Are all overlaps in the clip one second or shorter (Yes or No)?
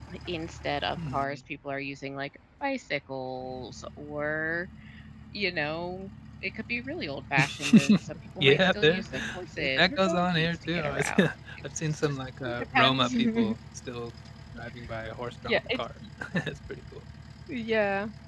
No